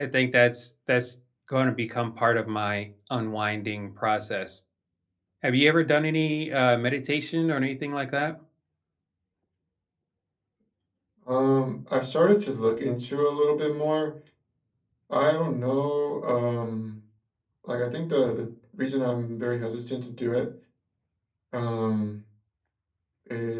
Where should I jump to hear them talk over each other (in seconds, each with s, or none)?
none